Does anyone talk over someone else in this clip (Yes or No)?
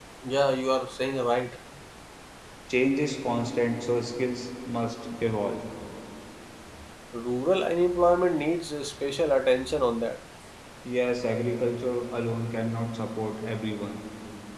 No